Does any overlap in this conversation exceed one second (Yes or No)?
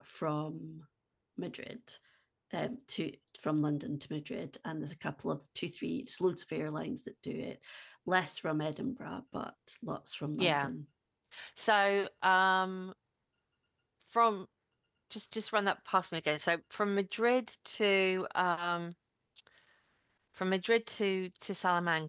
No